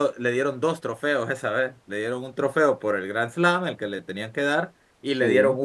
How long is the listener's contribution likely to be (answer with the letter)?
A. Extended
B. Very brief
B